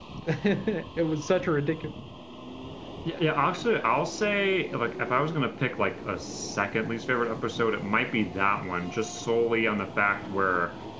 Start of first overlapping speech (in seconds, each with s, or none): none